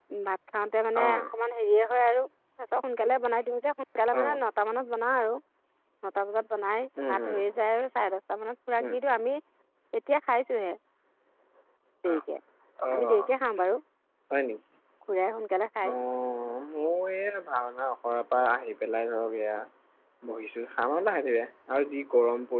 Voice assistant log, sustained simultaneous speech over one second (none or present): none